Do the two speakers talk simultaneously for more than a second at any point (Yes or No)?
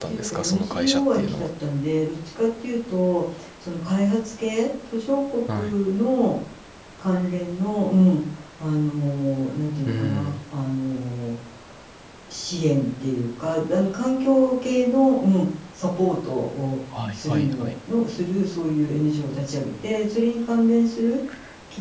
Yes